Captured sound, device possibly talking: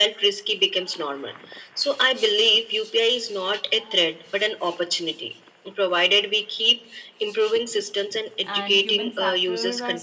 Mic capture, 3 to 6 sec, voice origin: echo only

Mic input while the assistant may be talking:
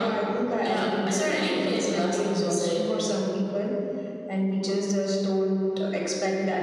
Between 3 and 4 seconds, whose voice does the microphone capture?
echo only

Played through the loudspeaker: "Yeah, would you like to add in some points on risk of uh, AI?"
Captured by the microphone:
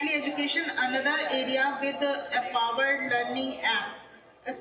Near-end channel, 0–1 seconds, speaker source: both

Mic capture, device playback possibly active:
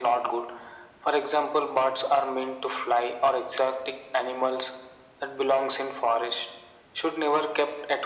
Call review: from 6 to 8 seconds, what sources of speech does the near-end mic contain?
echo only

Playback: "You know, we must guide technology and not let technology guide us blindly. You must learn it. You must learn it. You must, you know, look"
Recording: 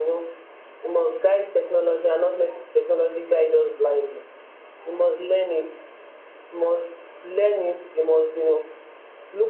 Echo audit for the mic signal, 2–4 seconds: echo only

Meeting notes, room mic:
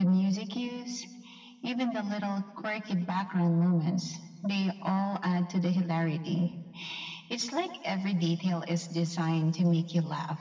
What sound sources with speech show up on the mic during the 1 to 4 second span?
echo only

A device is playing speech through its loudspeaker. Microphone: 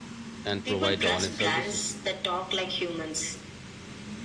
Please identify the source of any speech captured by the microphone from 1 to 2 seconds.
both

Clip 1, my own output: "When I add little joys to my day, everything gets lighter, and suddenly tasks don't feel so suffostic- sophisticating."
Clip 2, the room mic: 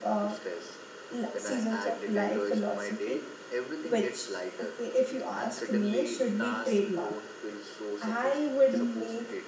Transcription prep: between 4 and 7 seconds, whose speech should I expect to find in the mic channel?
both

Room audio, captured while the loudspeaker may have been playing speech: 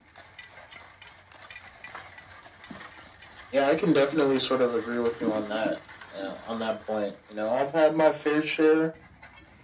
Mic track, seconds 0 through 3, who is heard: neither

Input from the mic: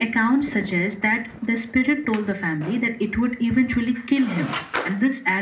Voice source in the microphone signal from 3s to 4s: echo only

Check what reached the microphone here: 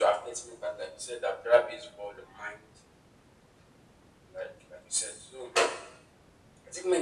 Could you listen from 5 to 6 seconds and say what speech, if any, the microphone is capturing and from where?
echo only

